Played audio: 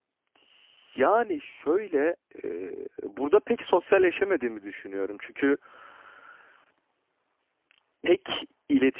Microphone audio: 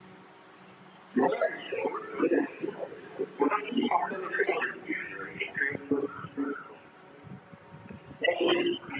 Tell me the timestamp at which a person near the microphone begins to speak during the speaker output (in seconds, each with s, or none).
none